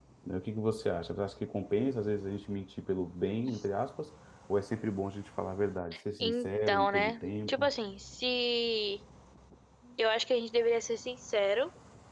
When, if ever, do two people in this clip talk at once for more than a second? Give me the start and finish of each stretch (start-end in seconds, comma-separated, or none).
6.2-7.7